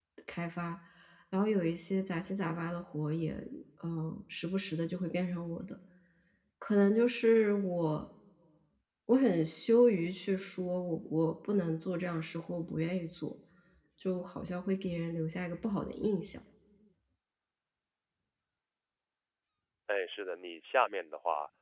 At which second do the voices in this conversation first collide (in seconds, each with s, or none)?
none